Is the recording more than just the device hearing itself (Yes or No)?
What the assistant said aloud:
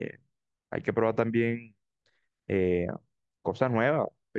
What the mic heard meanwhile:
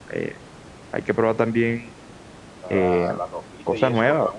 Yes